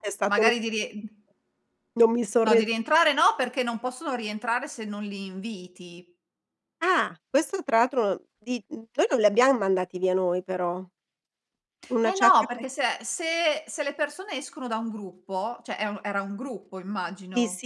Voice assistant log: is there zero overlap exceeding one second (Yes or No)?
Yes